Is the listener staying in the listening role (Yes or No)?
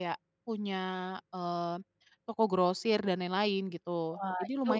No